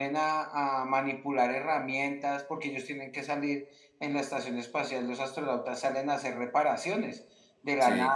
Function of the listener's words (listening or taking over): listening